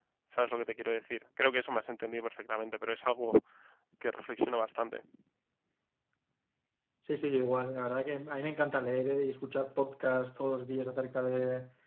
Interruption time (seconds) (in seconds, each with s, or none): none